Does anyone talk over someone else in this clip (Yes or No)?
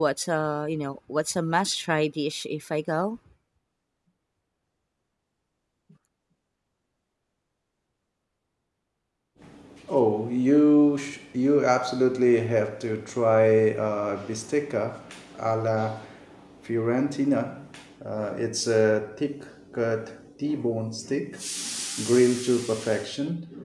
No